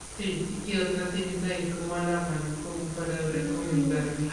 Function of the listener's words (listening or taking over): taking over